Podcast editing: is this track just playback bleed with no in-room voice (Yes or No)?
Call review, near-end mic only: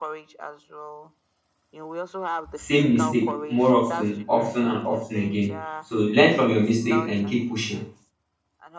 No